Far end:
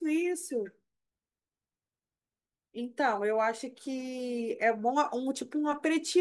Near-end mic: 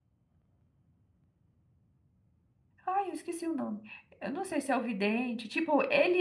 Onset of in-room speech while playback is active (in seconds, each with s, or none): 2.9 s